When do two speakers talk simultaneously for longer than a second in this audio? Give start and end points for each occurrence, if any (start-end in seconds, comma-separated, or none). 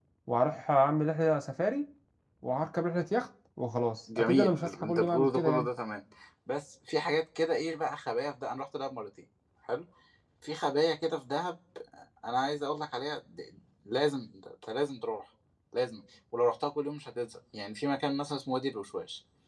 4.2-5.7